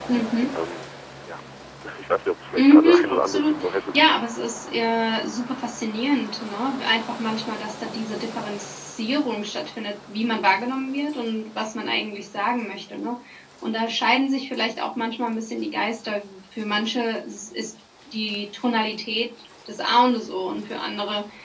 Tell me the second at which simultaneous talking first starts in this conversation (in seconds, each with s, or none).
2.6 s